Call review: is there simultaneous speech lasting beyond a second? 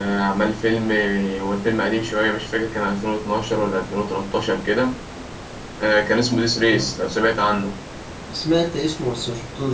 No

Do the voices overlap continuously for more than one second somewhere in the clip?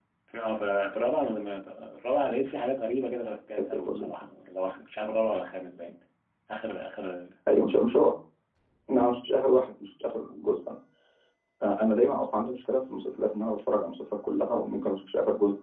No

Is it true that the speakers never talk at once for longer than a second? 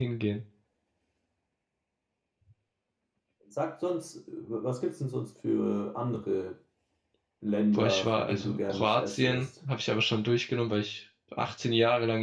No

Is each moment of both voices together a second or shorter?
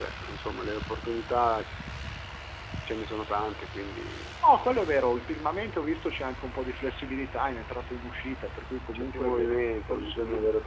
No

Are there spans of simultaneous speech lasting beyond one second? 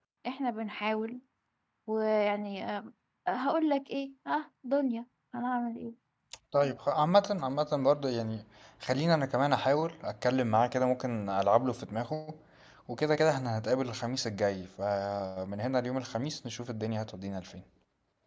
No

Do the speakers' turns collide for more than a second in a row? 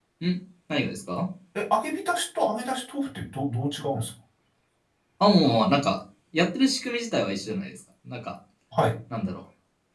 No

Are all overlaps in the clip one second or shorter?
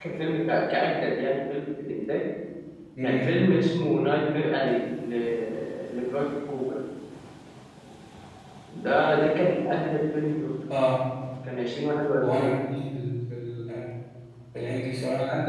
Yes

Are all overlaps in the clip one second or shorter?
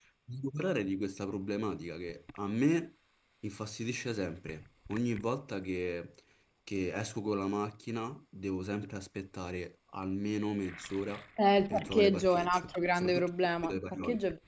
No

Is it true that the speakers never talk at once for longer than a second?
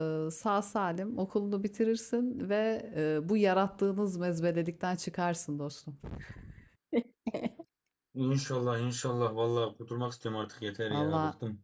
Yes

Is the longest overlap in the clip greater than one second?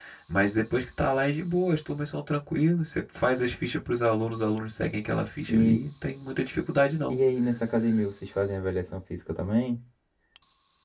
No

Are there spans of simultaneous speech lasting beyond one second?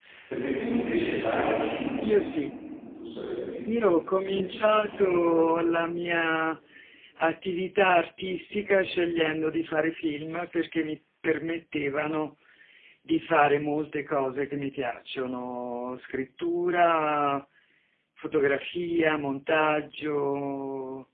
Yes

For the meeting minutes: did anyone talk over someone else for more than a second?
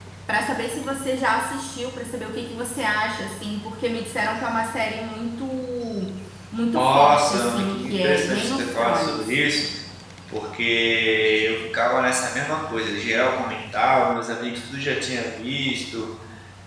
Yes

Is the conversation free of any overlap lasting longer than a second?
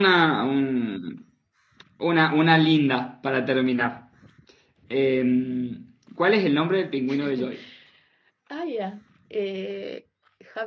Yes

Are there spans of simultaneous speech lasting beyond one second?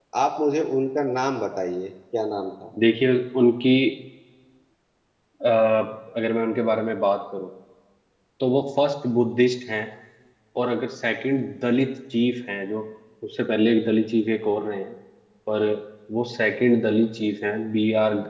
No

